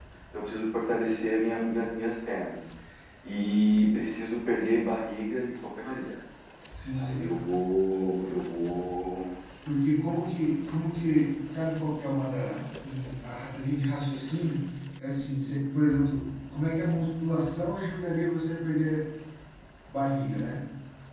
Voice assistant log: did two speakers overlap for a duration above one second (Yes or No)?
No